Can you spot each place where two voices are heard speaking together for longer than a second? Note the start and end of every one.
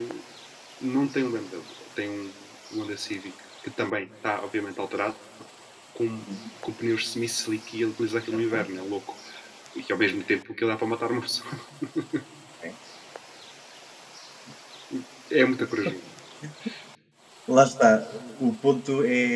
none

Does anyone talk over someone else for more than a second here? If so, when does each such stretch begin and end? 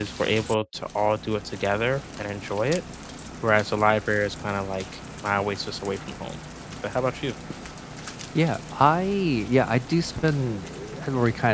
none

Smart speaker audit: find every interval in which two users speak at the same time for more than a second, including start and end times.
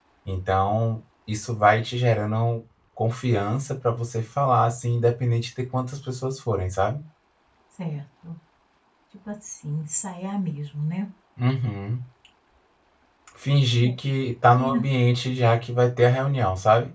none

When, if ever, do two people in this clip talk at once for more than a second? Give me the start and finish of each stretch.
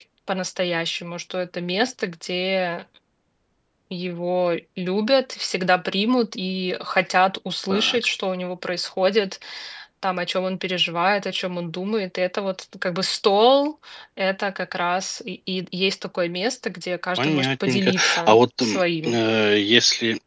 17.2-19.2

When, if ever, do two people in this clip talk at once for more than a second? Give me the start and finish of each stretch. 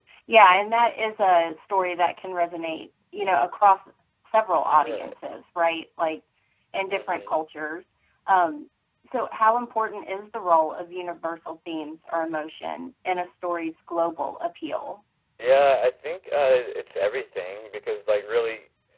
none

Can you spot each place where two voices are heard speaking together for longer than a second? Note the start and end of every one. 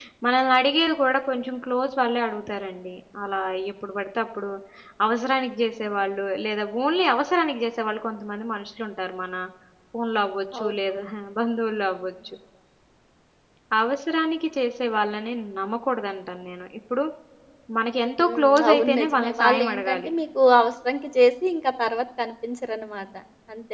18.2-20.1

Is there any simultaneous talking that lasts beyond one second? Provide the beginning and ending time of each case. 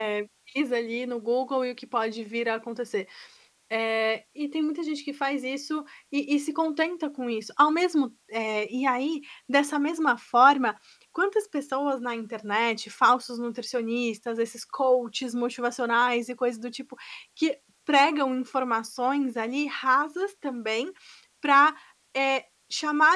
none

